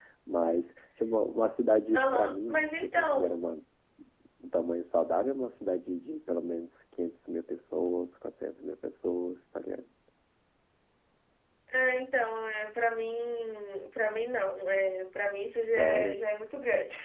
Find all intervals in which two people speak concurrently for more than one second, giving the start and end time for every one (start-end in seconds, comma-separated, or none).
1.9-3.4